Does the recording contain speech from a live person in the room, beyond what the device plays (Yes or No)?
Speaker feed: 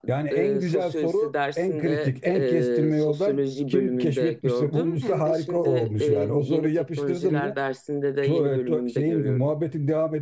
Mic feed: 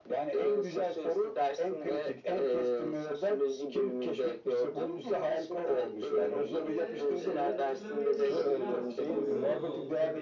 Yes